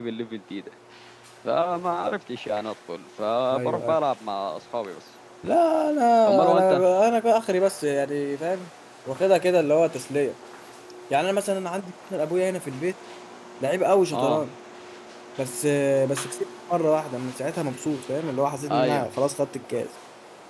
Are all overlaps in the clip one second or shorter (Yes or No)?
Yes